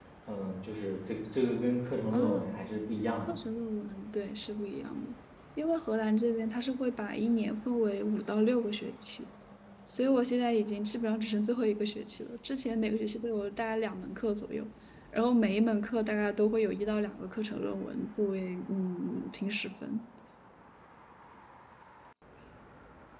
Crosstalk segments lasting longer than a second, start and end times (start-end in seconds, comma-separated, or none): none